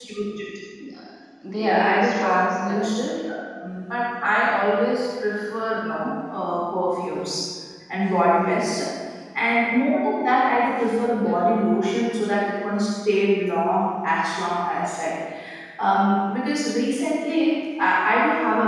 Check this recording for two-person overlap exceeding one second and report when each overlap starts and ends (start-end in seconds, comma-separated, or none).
1.6-2.9